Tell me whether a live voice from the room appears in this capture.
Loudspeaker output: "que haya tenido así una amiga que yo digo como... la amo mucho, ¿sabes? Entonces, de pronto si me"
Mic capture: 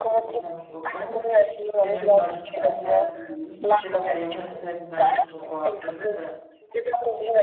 Yes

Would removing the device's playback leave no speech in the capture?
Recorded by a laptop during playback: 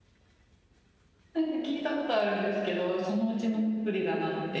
No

